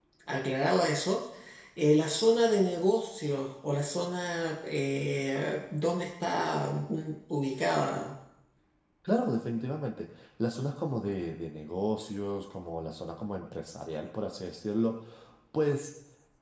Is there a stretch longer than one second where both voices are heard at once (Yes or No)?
No